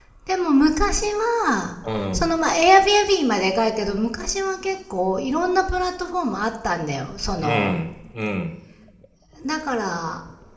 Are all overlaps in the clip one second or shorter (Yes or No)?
Yes